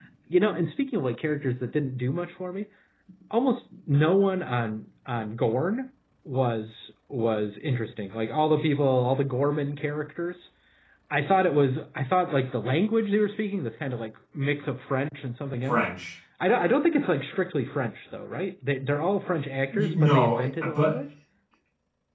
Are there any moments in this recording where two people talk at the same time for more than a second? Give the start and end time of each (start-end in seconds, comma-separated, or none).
19.7-21.0